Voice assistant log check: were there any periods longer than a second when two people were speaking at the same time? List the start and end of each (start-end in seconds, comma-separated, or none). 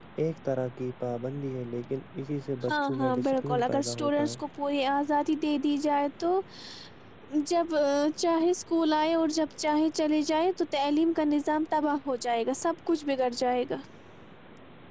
2.7-4.3